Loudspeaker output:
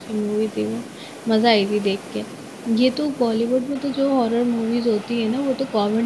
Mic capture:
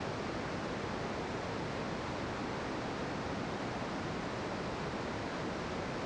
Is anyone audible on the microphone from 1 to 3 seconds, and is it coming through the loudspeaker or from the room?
neither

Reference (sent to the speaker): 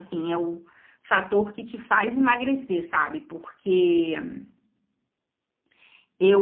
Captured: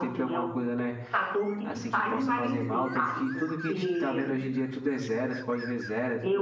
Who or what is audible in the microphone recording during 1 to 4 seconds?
both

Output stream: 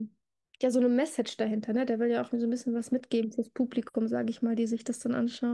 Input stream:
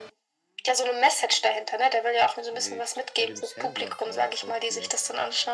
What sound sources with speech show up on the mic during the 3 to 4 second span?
both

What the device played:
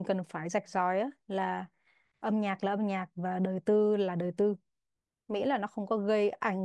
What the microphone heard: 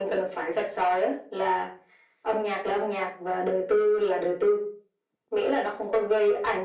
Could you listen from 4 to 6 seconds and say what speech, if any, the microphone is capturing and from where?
echo only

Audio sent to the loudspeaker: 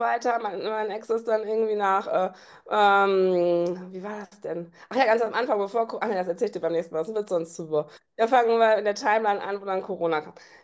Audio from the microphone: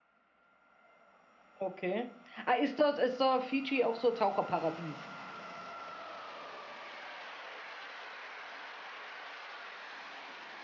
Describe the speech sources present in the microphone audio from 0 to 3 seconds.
user only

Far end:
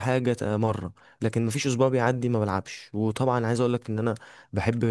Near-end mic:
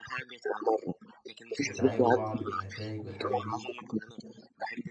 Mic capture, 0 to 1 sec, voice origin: echo only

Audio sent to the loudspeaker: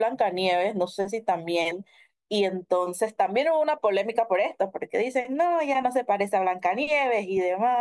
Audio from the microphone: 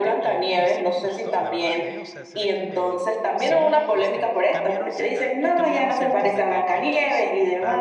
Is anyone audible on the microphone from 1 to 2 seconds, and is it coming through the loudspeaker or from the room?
both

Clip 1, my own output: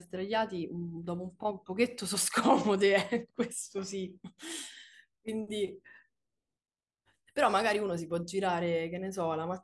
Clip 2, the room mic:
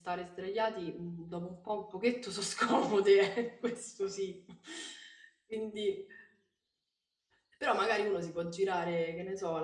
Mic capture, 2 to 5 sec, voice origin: echo only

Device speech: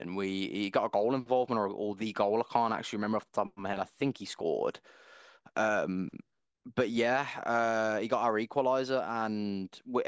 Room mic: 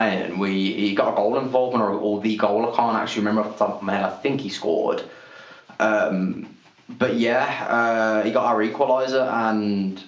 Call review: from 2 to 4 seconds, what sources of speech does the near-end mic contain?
echo only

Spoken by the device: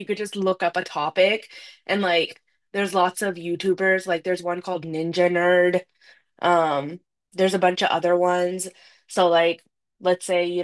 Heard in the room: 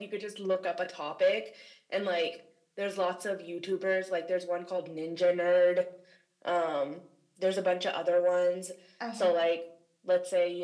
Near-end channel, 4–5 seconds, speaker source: echo only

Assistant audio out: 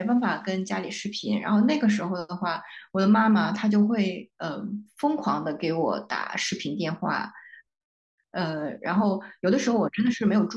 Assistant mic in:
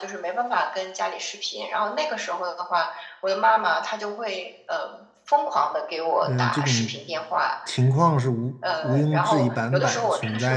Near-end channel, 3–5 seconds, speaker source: echo only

